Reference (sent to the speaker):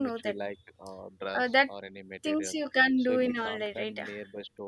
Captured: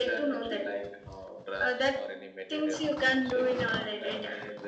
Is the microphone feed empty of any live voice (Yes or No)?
Yes